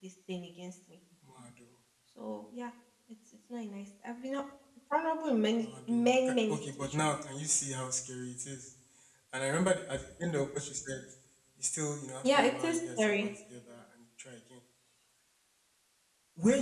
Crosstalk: present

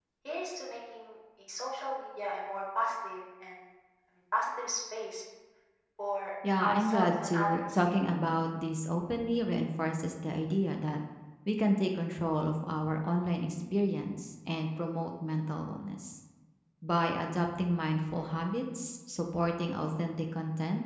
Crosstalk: present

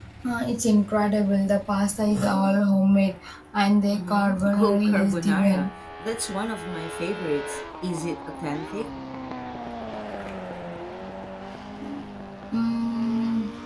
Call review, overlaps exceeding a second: present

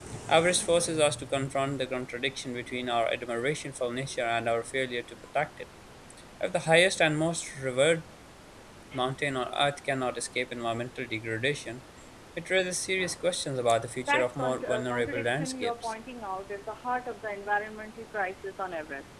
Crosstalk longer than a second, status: present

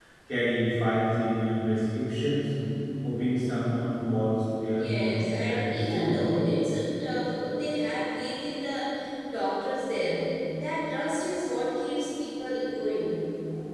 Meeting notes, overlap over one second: present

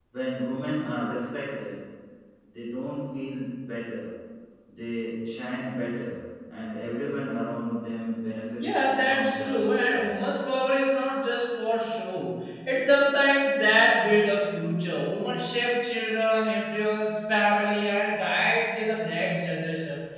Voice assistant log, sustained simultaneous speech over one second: present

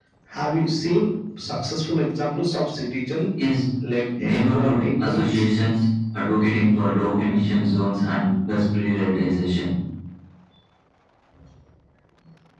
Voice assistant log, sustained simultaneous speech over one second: present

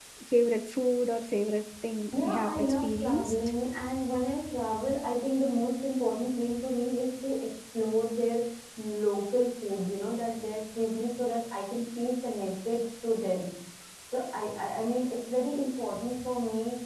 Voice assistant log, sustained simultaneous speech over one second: present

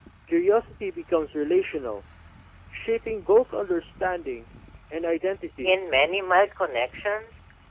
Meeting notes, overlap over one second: none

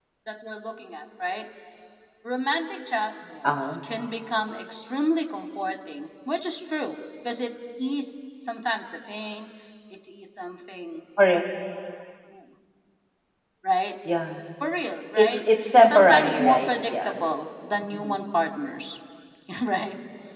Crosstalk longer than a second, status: present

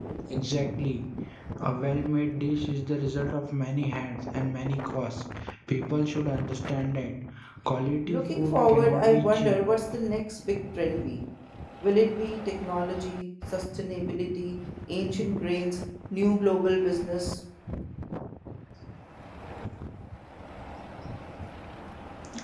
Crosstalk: present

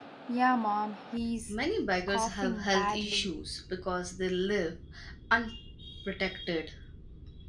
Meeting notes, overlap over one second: present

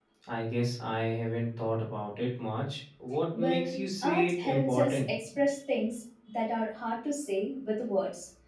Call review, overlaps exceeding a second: present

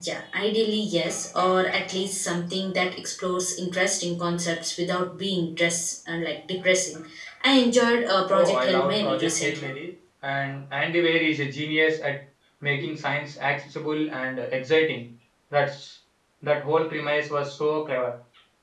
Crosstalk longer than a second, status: present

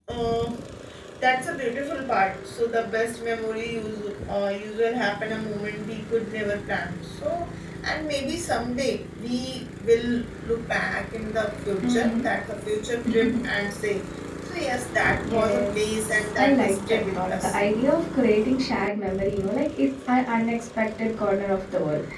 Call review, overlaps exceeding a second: present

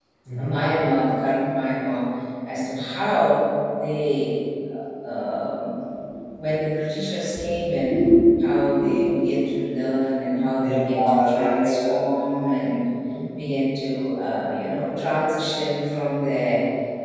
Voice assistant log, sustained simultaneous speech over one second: present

